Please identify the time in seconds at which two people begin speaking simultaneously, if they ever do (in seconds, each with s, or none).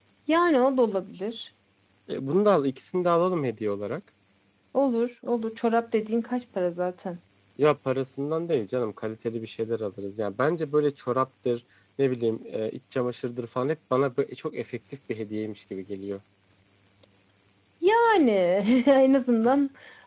none